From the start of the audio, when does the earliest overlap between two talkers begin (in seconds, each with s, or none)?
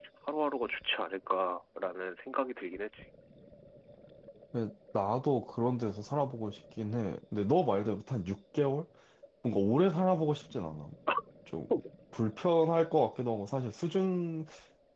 none